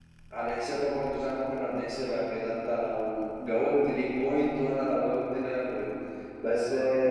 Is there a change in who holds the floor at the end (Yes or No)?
No